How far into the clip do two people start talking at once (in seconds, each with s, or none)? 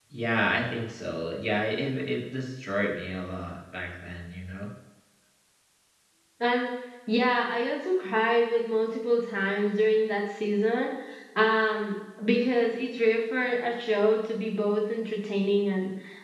none